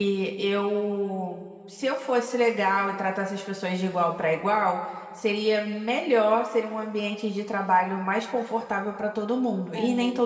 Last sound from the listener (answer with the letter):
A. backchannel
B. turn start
B